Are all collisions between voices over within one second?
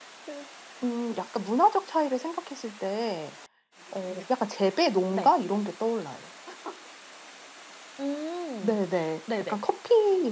Yes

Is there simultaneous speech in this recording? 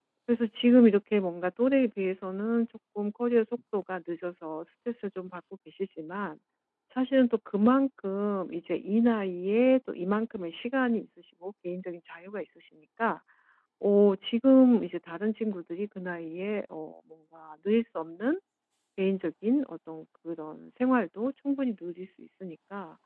No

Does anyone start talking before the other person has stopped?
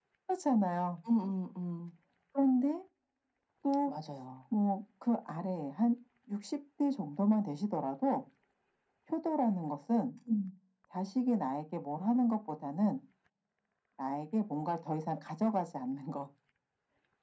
No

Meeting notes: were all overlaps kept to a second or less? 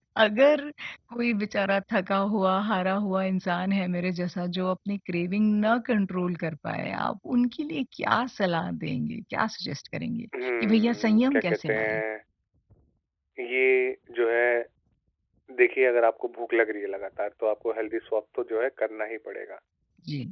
No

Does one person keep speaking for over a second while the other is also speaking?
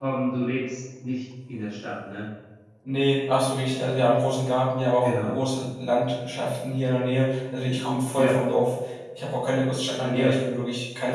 No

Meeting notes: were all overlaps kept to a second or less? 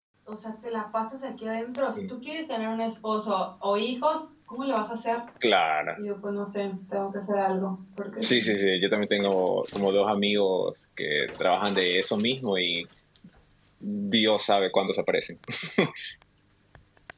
Yes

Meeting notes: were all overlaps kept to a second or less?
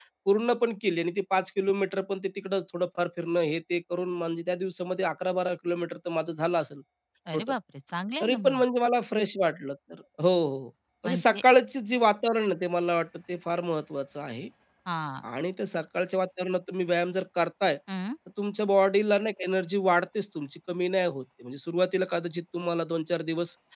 Yes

